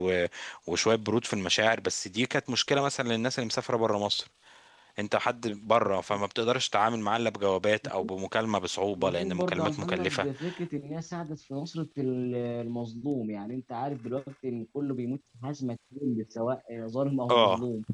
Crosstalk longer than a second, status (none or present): present